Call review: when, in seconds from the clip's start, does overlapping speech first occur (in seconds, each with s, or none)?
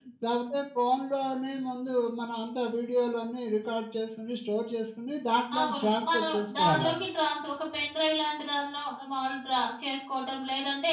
5.5 s